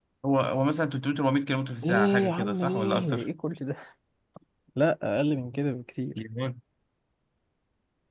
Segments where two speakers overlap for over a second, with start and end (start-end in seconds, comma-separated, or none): 1.8-3.3